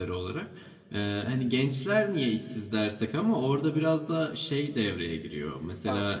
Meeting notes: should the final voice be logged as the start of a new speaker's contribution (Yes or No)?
No